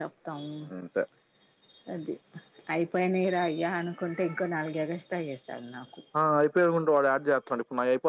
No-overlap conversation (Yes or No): Yes